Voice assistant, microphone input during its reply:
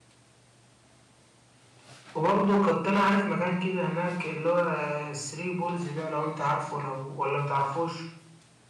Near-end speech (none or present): present